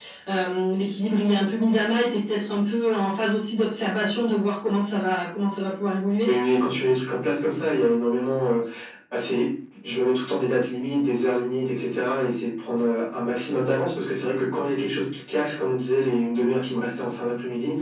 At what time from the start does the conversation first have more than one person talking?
none

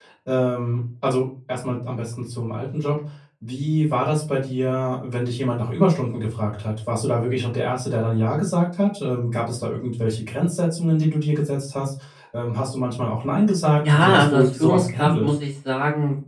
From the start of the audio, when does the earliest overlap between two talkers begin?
14 s

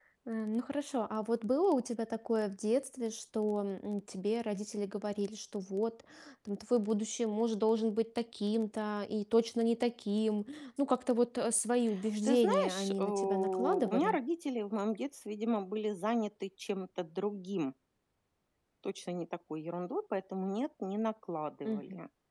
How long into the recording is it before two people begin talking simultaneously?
12 s

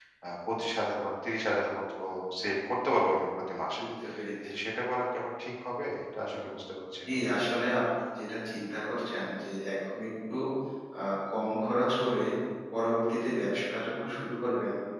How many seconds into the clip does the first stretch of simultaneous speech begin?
none

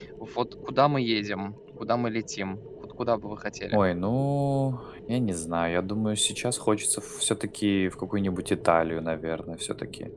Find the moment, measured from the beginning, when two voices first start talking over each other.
none

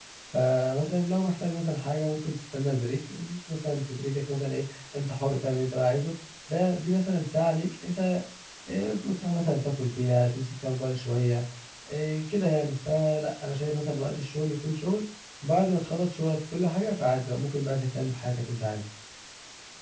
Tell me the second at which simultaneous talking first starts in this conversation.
none

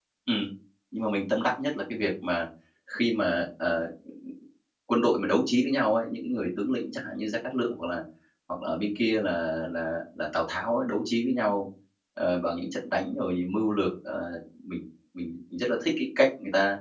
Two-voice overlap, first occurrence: none

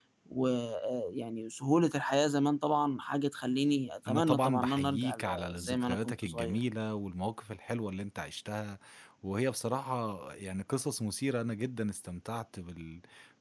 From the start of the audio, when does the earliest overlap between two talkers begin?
4 s

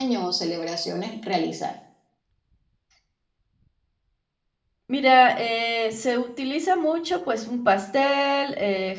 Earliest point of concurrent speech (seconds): none

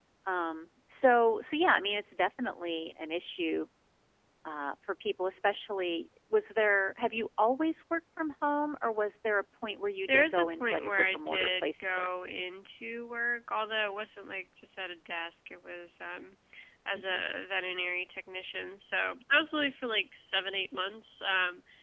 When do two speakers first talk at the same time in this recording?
10 s

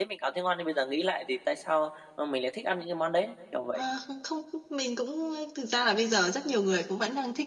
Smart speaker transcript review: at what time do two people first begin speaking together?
none

